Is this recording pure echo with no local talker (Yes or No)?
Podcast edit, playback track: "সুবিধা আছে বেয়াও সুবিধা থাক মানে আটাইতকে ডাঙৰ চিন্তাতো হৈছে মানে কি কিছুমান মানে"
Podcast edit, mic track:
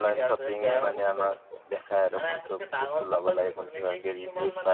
No